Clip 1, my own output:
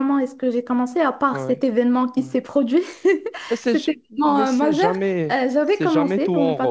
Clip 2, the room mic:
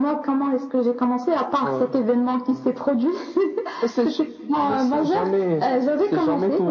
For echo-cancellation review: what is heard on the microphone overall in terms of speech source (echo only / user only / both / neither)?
echo only